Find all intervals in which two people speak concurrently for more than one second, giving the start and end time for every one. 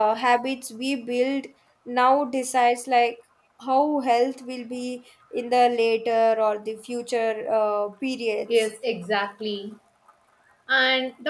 none

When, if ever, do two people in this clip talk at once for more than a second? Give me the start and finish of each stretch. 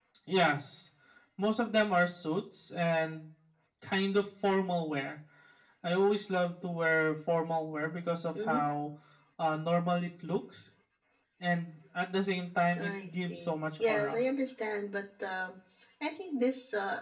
12.8-14.2

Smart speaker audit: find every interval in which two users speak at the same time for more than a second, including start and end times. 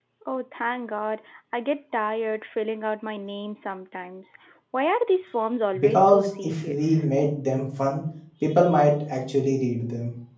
5.8-7.0

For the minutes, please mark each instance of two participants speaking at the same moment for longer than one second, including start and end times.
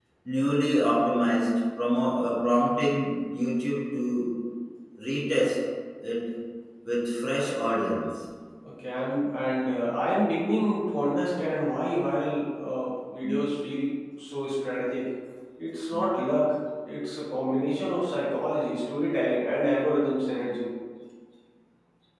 none

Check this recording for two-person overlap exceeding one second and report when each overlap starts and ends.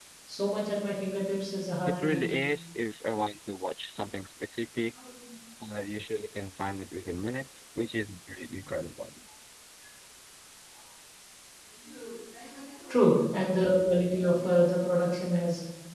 none

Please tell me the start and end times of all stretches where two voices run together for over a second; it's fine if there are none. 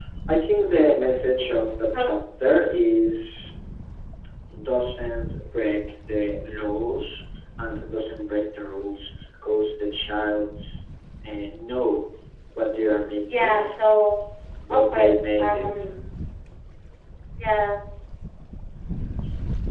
14.7-15.9

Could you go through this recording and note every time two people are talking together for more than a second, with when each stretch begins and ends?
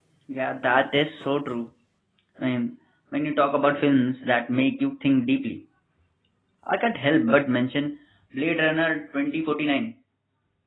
none

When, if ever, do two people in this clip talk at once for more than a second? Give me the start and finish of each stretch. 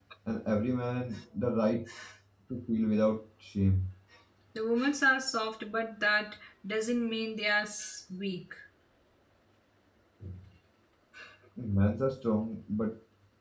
none

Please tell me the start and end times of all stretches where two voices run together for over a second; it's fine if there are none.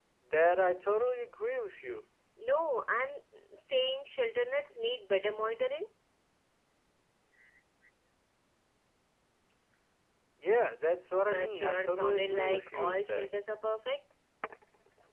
11.2-13.3

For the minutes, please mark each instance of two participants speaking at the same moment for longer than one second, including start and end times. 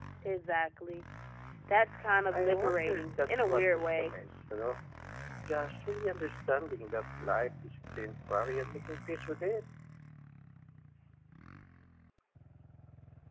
2.3-4.2

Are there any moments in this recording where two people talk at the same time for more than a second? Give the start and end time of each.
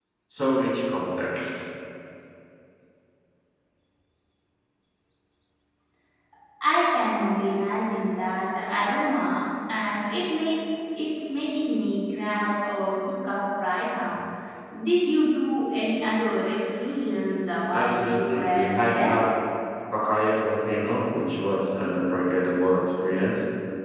17.7-19.2

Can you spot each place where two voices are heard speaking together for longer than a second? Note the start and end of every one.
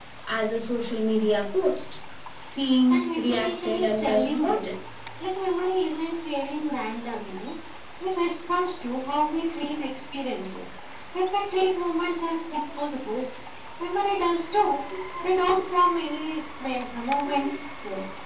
2.9-4.6

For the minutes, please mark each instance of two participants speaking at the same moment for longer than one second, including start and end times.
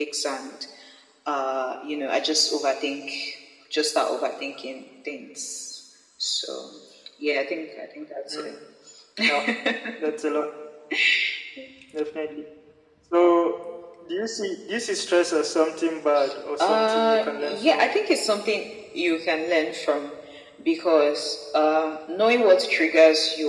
16.6-17.8

